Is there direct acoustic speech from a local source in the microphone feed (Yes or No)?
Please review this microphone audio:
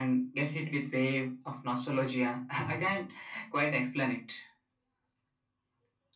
No